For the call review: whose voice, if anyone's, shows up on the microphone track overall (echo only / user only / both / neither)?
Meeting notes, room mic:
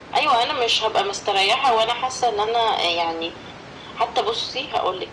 echo only